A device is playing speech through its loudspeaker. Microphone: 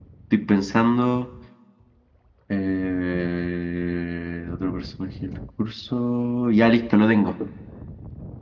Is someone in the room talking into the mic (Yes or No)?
Yes